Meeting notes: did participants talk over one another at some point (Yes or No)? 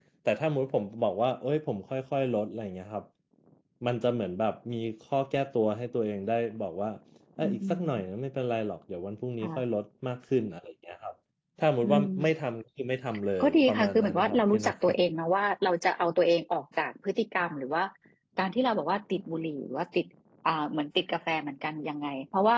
Yes